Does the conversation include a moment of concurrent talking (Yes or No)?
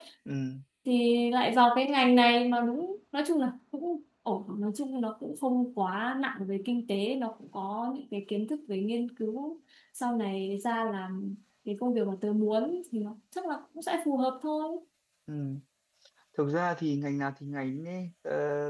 No